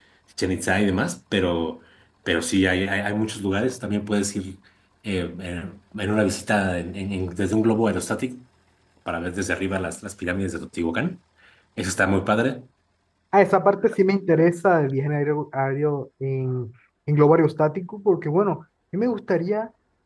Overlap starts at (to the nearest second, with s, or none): none